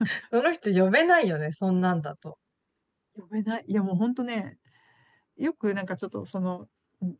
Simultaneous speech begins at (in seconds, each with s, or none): none